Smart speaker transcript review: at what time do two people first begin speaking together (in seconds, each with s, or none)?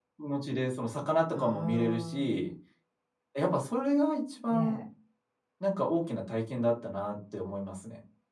1.3 s